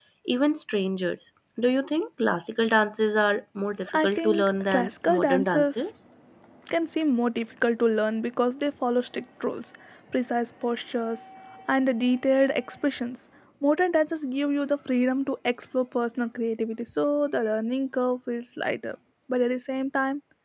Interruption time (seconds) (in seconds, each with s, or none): 3.9 s